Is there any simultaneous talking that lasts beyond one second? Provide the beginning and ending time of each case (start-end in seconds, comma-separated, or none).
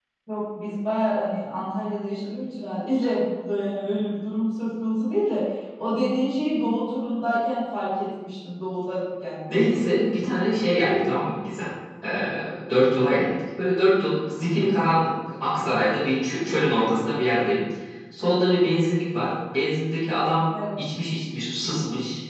none